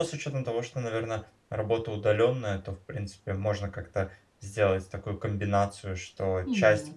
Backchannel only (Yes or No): Yes